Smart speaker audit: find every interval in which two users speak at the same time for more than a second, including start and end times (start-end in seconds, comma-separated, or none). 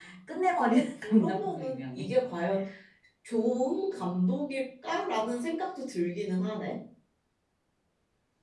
0.5-2.0